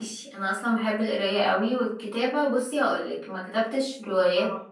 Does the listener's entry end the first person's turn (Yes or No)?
No